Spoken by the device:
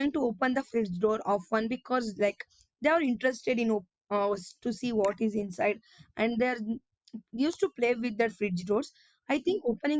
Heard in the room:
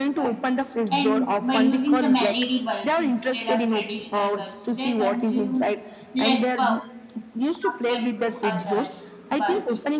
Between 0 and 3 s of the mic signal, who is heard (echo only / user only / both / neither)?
both